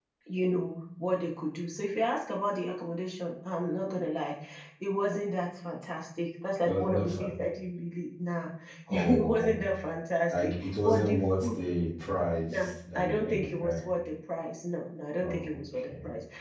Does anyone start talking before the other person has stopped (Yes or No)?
Yes